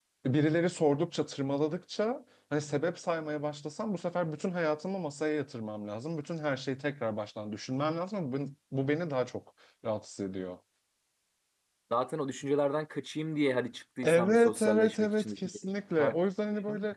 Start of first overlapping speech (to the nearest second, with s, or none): 14 s